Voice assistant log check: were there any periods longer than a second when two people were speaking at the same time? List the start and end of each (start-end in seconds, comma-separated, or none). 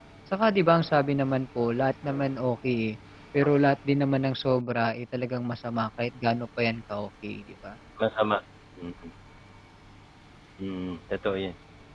none